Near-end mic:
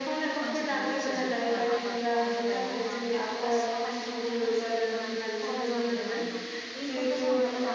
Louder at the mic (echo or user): echo